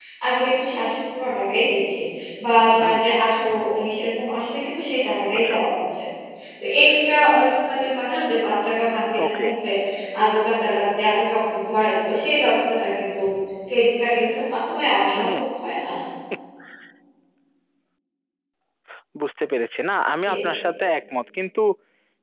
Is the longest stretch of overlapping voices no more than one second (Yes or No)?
Yes